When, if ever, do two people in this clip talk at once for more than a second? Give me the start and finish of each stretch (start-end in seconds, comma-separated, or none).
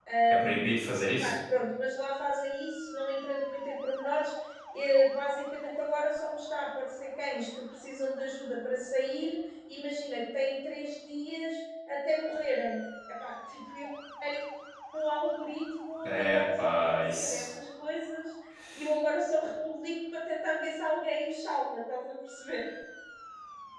16.0-17.5